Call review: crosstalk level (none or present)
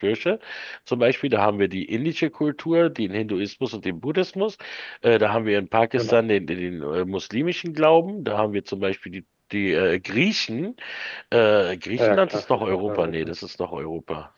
present